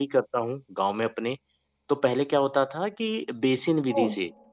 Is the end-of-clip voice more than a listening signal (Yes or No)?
No